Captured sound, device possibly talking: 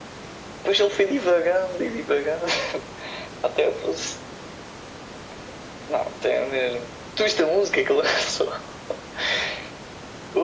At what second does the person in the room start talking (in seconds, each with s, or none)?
none